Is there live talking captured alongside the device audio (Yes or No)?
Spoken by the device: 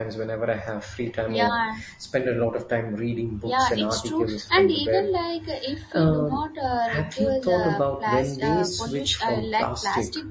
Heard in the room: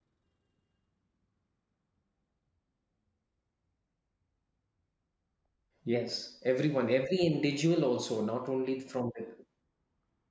Yes